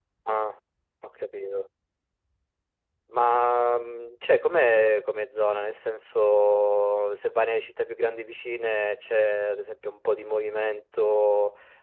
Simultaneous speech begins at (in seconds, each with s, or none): none